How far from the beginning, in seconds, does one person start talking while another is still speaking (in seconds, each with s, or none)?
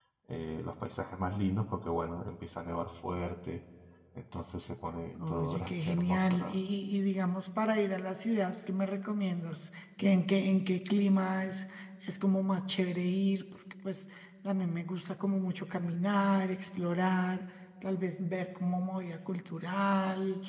5.2 s